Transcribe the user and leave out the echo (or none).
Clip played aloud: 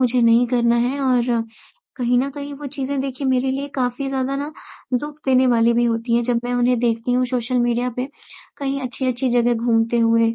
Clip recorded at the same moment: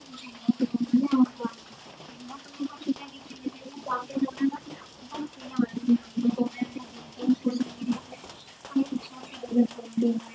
none